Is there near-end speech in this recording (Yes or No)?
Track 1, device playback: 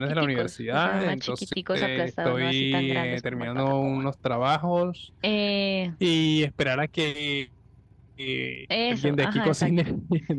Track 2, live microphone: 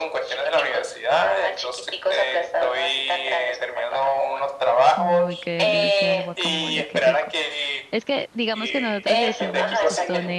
Yes